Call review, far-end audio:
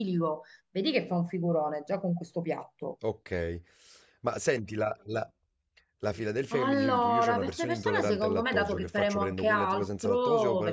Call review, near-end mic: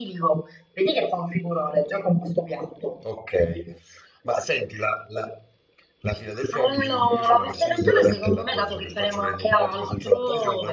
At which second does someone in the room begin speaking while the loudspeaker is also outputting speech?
none

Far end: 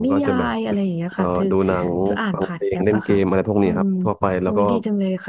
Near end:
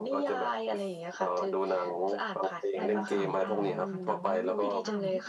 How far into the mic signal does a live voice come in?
2.8 s

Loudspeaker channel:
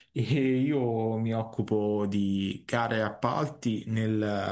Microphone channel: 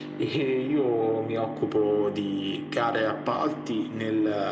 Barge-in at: none

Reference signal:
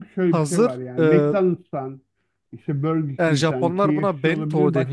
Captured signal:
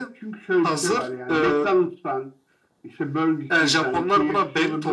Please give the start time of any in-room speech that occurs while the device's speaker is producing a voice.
none

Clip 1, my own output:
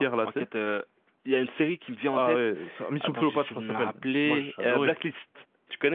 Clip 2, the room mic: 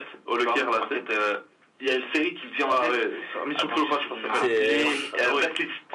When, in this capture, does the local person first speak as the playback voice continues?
4.3 s

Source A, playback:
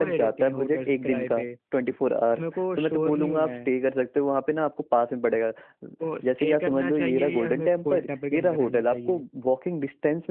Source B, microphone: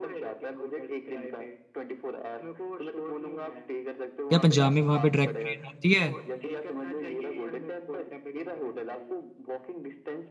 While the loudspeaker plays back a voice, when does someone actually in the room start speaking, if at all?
4.3 s

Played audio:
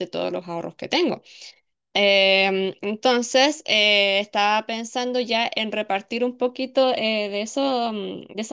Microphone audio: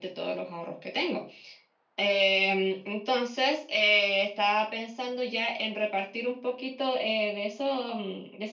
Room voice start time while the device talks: none

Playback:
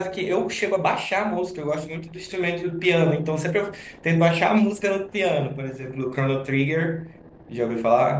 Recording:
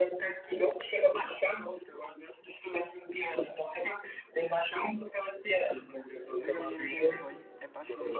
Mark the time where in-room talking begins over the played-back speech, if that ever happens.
6.4 s

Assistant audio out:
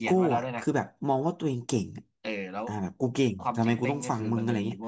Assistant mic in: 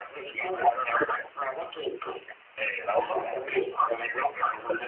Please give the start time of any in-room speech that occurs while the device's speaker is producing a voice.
2.9 s

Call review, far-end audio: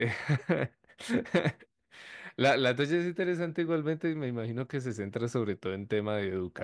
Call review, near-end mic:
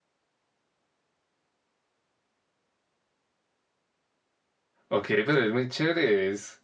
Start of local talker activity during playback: 4.9 s

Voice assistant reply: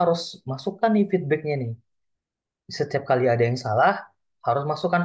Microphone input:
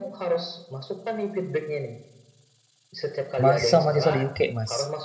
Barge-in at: 3.4 s

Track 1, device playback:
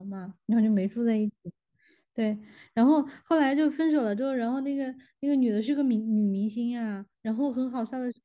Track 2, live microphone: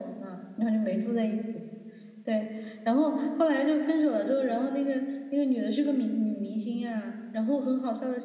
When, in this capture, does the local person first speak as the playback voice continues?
none

